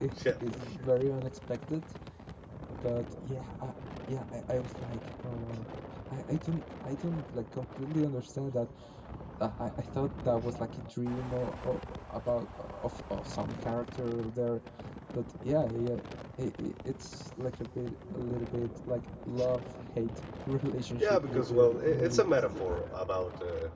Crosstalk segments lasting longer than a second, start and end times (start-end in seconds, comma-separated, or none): 21.0-22.2